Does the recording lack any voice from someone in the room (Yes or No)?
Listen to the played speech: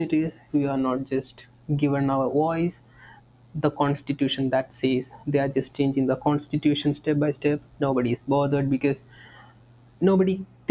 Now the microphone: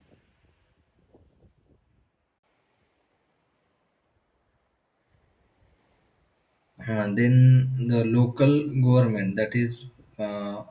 No